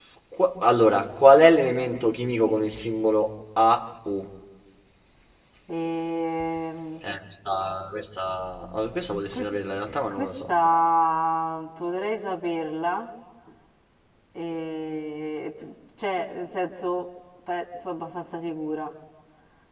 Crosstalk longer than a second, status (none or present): none